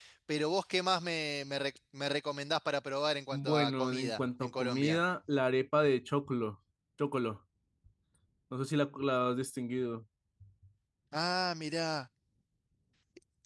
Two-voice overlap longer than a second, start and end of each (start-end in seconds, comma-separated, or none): 3.3-5.0